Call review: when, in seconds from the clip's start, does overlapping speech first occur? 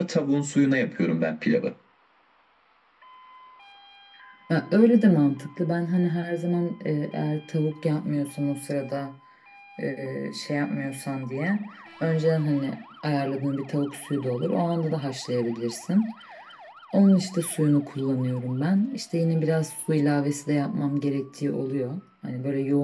none

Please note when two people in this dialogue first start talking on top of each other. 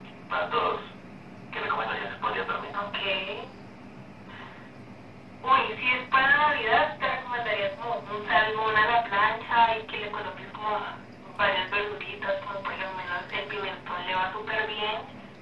none

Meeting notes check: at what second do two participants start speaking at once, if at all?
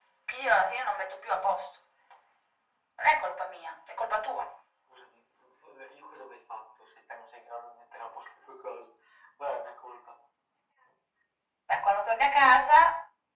none

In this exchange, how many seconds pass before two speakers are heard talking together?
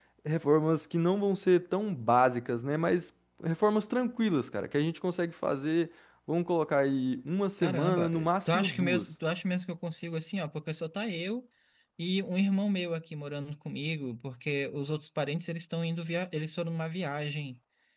7.6 s

